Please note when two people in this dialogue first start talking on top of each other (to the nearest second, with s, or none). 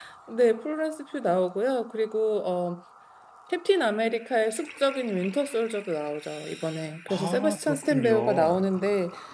7 s